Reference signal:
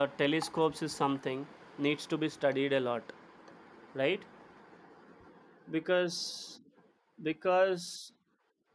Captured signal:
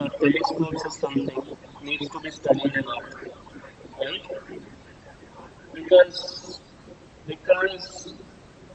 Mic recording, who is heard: echo only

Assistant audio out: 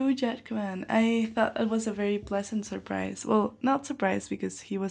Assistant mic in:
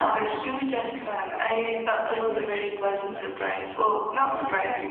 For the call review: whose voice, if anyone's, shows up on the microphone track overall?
both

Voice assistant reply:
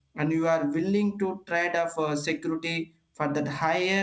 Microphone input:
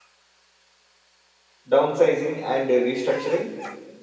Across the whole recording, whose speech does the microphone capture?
user only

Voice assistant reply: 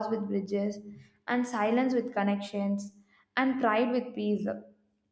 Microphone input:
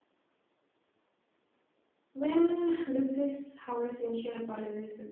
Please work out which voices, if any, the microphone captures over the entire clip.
user only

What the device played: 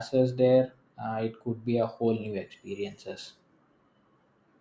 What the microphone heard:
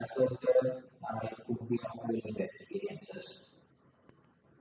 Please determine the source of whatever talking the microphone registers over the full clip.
echo only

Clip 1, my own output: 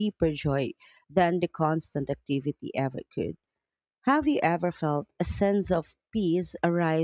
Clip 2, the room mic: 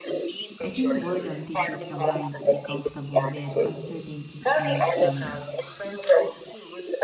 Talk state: both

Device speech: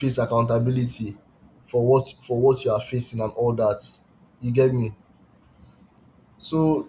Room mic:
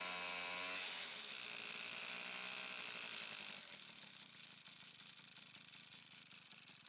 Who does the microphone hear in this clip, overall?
neither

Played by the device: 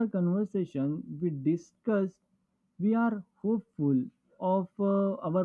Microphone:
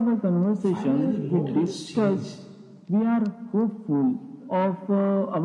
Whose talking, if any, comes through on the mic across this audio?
both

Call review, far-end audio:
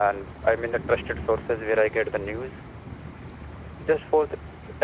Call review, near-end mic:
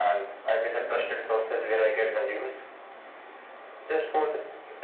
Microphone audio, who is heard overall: echo only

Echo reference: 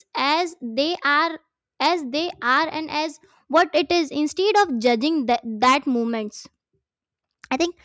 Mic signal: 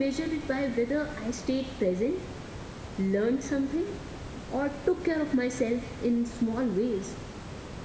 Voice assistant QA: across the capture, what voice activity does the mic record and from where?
user only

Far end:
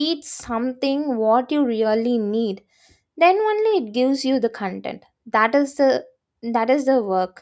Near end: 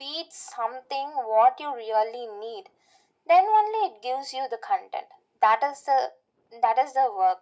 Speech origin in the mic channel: echo only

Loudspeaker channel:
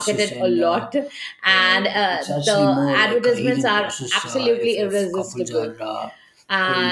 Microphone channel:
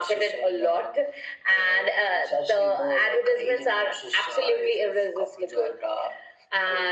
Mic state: echo only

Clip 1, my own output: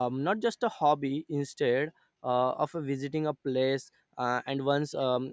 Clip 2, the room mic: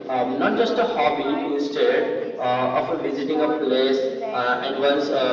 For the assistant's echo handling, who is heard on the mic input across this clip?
both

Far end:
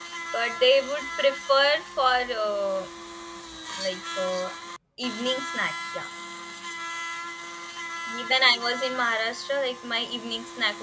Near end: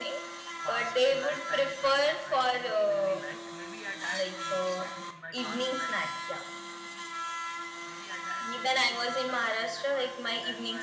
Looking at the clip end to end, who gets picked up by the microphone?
both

